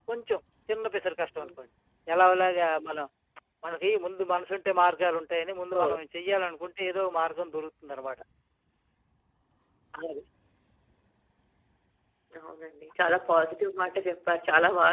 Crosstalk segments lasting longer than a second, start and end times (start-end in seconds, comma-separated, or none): none